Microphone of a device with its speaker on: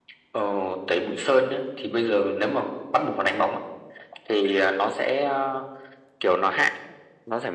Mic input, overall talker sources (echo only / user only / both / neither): echo only